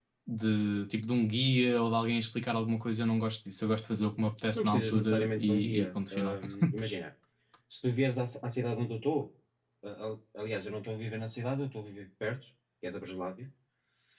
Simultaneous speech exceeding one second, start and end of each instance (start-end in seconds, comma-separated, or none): 4.6-6.4